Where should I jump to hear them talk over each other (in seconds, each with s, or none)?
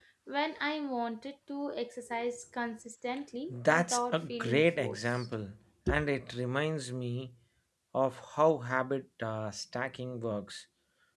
3.5 s